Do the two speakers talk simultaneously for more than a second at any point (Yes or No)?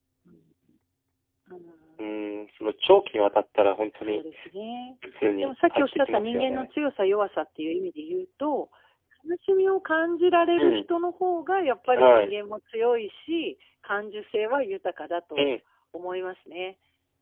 Yes